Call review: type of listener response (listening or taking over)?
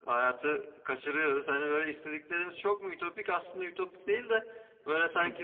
listening